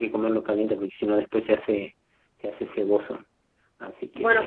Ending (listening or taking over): taking over